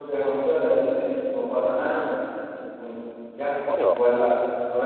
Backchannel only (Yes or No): Yes